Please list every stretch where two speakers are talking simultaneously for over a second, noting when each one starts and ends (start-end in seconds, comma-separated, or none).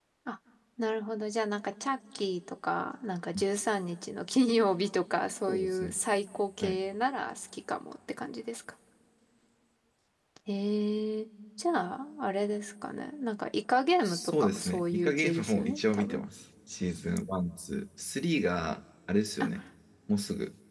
14.1-16.2